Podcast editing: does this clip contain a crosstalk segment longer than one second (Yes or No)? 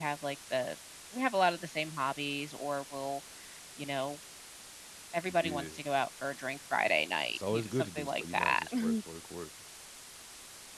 Yes